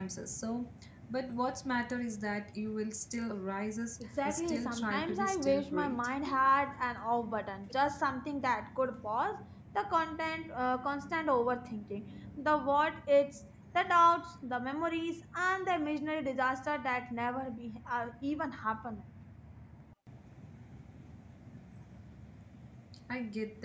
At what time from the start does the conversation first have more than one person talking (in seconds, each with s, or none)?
4.0 s